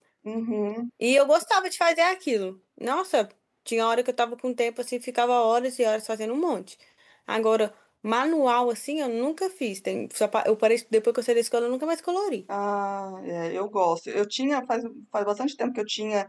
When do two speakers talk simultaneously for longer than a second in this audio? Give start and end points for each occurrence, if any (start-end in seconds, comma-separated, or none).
none